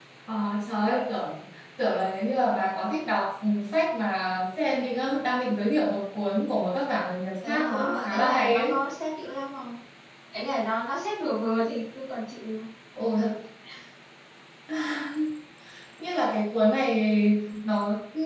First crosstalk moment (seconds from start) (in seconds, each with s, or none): 7.4 s